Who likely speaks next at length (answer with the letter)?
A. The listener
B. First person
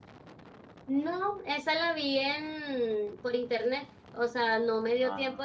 B